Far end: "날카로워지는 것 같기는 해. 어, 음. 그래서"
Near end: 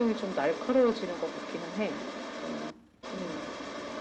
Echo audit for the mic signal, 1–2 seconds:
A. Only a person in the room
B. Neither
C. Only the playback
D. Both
C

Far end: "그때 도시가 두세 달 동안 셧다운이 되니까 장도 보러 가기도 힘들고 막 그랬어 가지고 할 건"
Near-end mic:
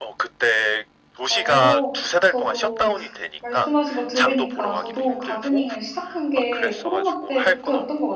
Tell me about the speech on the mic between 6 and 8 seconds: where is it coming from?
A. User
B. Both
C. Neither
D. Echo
B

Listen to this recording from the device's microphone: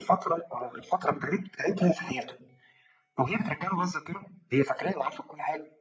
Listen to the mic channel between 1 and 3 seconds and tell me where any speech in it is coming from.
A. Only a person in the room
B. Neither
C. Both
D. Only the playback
D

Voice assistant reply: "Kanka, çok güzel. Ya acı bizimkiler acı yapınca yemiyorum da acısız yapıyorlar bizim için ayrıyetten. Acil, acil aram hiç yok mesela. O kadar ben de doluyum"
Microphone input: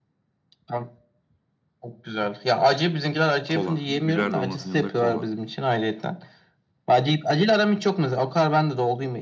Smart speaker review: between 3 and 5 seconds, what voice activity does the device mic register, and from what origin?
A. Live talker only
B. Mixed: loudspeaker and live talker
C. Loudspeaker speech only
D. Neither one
B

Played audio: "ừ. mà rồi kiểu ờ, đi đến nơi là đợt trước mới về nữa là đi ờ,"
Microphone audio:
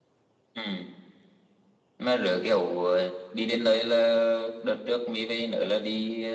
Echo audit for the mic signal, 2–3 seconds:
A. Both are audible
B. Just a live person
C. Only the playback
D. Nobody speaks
C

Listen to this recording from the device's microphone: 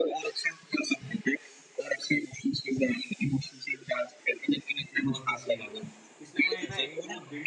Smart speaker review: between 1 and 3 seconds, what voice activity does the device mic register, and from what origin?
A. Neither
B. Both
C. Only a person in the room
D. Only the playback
D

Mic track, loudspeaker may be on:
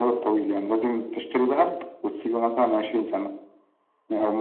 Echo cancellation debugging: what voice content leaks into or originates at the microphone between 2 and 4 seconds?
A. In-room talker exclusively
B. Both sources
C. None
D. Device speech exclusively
D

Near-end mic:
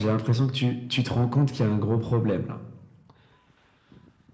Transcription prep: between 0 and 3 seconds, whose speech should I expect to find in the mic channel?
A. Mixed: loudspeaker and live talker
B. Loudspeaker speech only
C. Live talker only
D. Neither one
B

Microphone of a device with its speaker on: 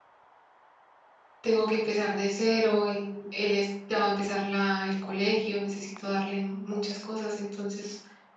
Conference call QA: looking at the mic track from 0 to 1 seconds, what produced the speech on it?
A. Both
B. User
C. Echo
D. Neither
D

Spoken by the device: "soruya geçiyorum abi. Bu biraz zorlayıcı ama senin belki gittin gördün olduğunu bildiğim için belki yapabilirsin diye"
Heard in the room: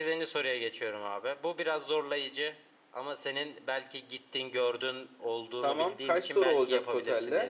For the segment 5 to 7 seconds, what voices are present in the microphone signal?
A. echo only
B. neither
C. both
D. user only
C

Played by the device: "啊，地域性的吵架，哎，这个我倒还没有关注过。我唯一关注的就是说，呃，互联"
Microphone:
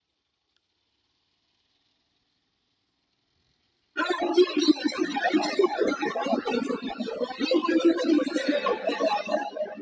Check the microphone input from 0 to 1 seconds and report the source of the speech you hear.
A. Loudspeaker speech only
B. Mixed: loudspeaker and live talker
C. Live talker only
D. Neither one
D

